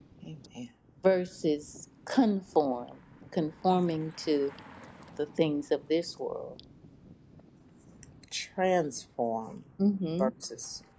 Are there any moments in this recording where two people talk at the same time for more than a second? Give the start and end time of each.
none

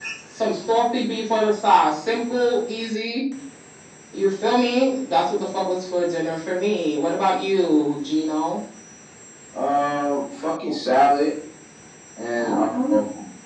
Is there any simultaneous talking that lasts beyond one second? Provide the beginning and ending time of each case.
none

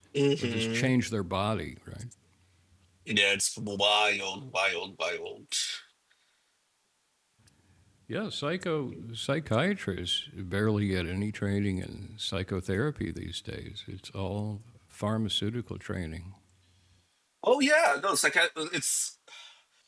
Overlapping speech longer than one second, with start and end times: none

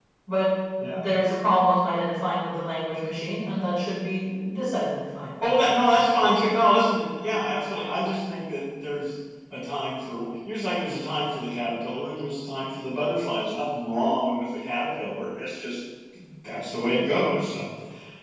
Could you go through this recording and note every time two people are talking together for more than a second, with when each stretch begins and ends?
none

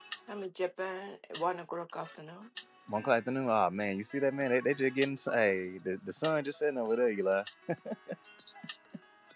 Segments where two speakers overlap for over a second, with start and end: none

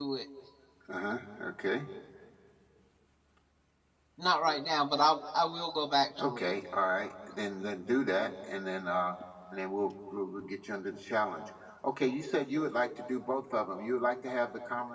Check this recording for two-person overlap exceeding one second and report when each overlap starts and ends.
none

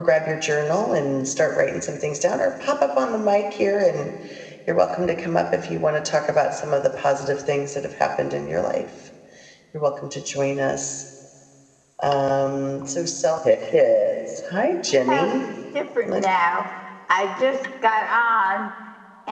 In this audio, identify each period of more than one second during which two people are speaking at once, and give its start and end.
none

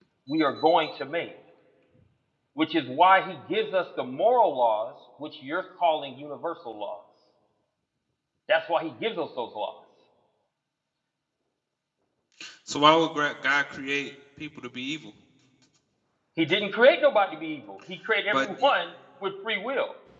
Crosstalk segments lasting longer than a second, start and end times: none

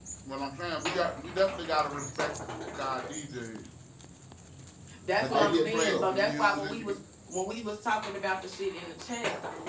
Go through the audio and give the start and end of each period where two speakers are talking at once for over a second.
5.2-6.8

